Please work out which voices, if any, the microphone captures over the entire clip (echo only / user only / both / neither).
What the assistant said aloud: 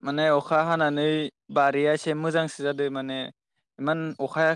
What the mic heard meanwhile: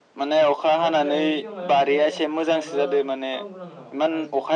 both